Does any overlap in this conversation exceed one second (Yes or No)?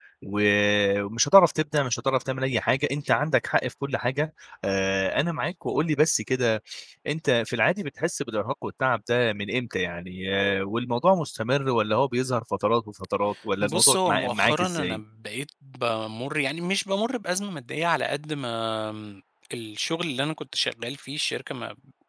Yes